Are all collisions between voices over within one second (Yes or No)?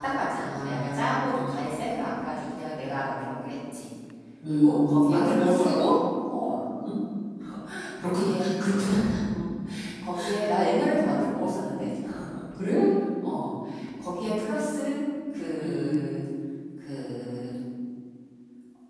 No